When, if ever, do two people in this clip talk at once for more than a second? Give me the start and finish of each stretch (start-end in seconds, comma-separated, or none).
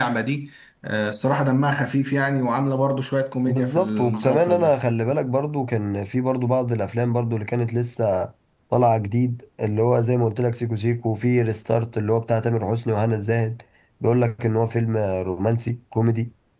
3.5-4.7